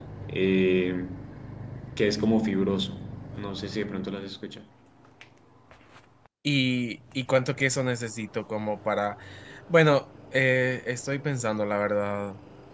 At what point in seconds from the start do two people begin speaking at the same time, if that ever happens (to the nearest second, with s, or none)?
none